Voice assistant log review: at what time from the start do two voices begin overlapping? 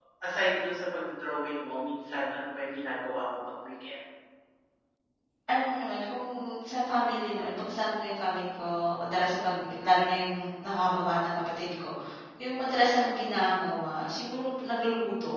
none

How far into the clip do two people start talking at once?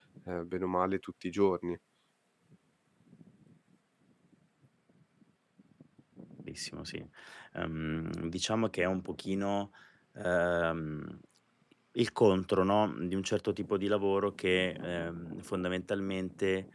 none

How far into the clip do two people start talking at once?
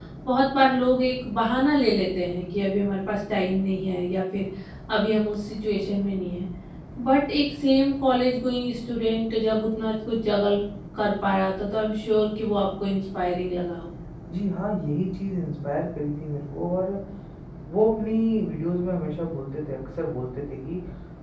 none

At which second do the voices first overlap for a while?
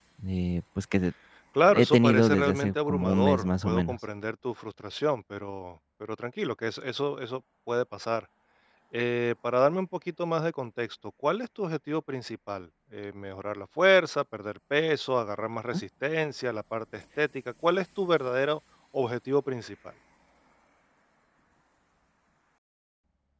1.7 s

